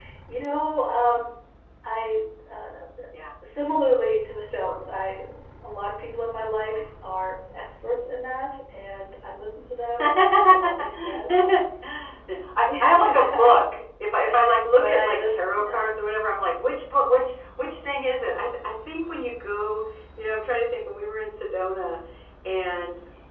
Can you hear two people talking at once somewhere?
Yes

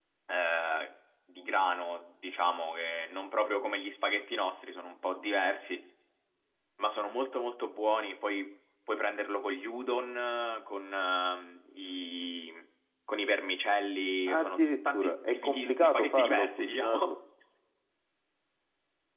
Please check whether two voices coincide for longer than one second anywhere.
Yes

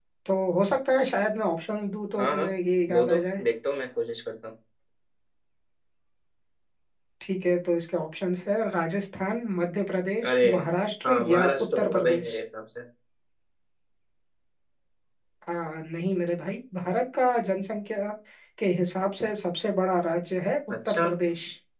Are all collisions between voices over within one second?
No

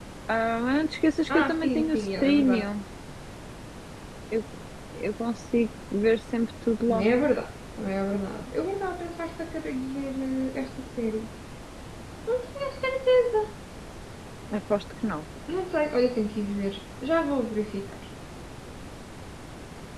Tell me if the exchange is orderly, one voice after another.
No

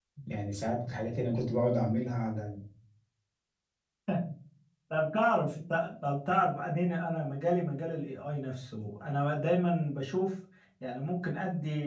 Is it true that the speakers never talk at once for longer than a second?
Yes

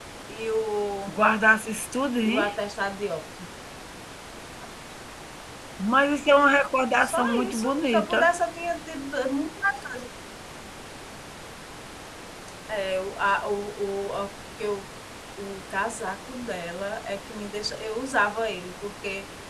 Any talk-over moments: Yes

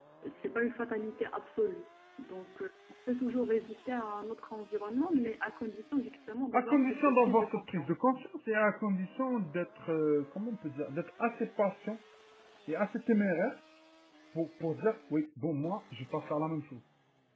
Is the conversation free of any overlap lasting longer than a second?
No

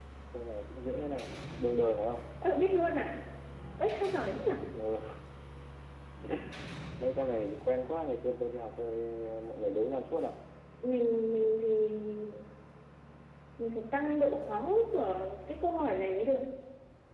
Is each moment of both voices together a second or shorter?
Yes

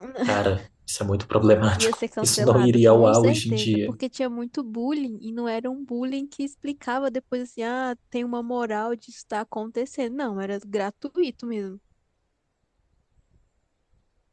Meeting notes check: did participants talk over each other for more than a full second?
Yes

